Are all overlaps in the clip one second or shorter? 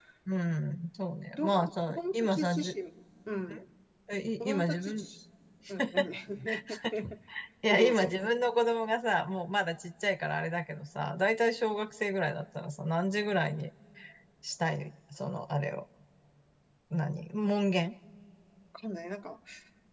No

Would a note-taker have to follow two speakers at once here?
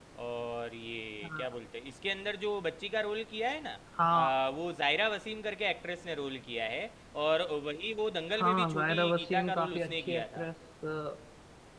Yes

